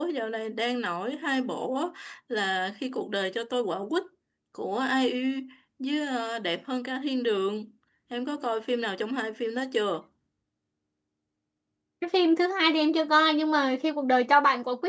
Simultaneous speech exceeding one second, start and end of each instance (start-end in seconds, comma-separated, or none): none